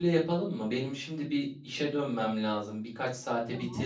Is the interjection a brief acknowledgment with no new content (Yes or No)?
Yes